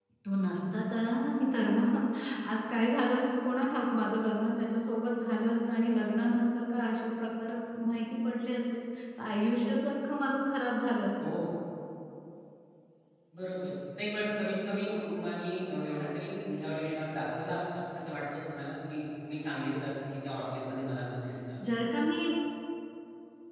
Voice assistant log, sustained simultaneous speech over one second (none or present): none